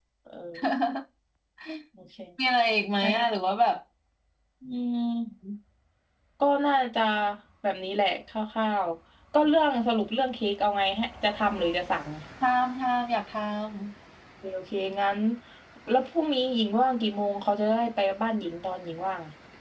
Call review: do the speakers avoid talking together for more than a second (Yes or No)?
Yes